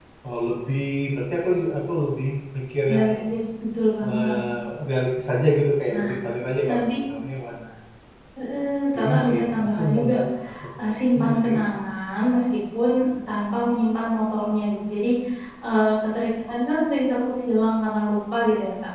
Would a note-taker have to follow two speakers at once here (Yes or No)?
Yes